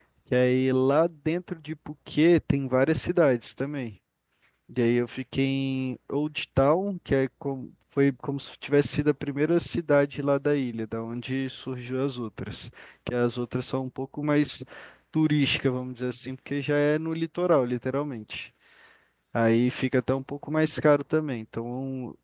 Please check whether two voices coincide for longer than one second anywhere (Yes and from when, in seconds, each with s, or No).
No